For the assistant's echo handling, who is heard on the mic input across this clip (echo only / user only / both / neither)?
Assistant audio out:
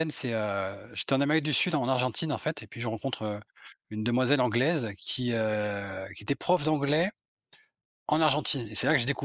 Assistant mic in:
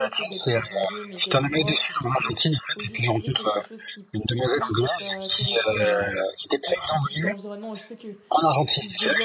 both